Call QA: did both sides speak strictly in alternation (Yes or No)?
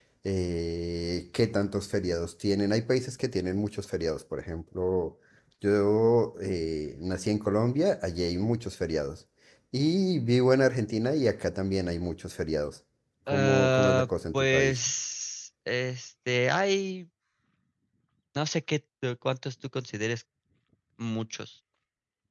No